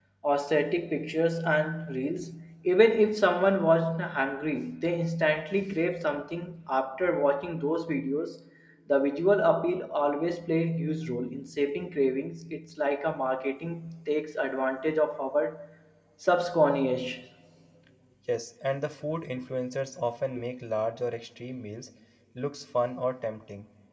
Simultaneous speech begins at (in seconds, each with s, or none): none